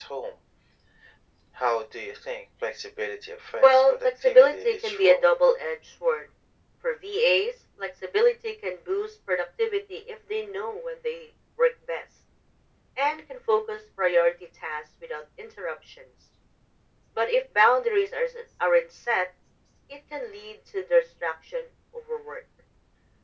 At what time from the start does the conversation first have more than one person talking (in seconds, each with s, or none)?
3.6 s